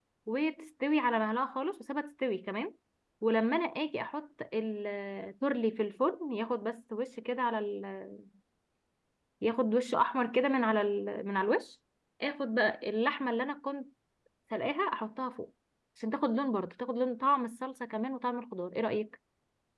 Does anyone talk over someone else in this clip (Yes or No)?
No